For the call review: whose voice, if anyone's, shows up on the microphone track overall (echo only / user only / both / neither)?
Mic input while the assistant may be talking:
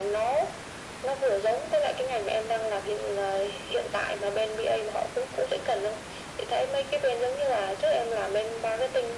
echo only